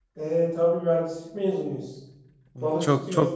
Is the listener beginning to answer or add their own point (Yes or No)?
Yes